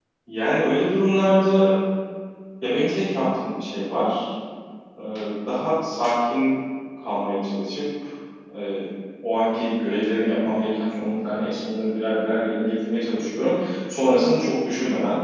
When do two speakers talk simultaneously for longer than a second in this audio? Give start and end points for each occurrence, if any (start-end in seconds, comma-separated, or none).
none